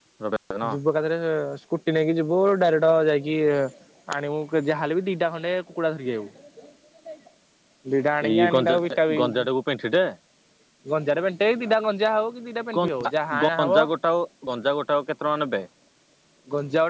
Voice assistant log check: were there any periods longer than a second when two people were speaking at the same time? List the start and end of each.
none

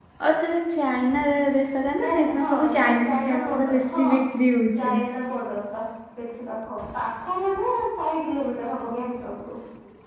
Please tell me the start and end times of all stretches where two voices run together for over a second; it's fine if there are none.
2.0-4.1

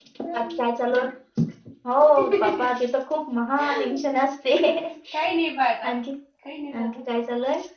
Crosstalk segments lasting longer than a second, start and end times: none

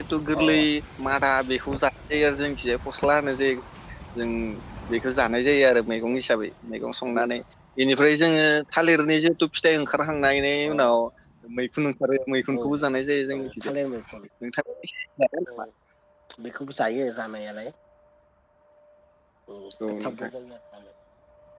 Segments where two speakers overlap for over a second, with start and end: none

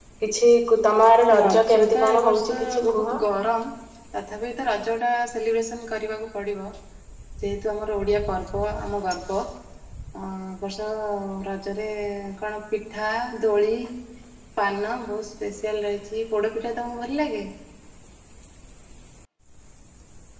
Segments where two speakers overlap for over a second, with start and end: 1.4-3.1

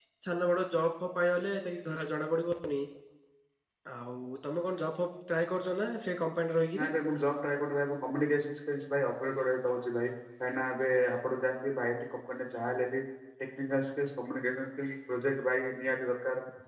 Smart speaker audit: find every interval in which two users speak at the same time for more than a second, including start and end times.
none

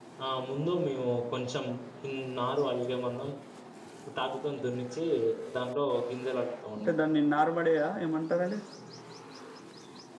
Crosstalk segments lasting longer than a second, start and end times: none

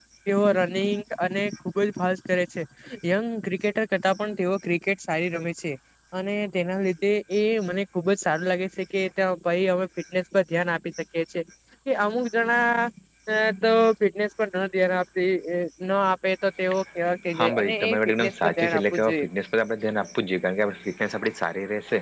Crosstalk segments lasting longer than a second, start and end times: 17.4-19.2

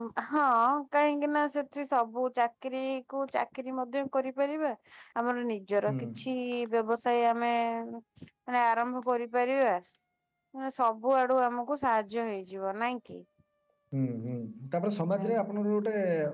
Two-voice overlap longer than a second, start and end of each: none

